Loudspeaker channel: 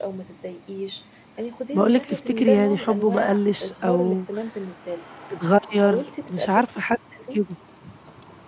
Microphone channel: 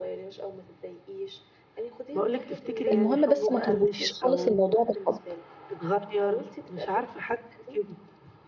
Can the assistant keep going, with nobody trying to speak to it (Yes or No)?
No